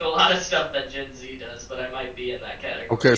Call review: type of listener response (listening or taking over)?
taking over